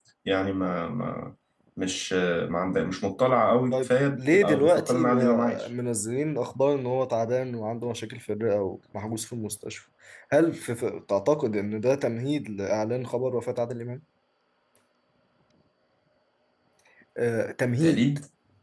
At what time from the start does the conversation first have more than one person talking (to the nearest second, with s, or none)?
4 s